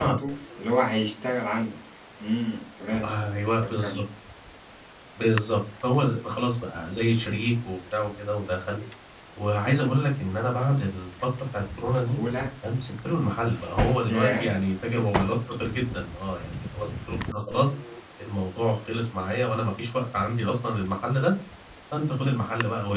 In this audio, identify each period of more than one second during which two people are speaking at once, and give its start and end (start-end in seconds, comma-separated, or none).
none